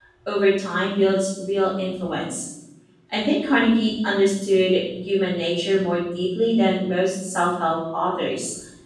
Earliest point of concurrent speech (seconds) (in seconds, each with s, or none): none